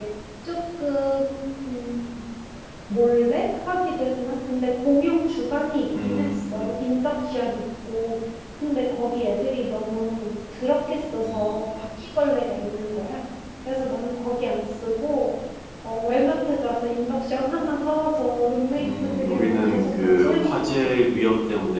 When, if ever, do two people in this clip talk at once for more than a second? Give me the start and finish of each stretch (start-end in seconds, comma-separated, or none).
18.8-20.6